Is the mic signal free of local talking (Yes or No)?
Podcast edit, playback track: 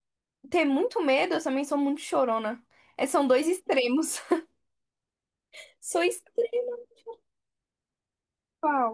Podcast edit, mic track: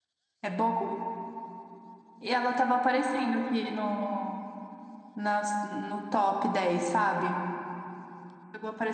No